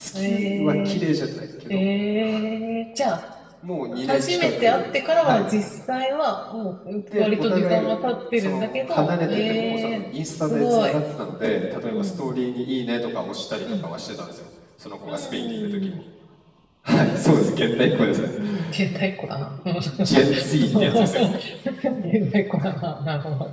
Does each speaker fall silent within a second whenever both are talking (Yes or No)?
No